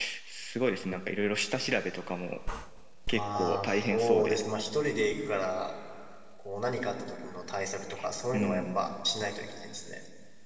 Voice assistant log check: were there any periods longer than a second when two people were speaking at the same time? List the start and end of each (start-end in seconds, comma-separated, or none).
3.1-4.4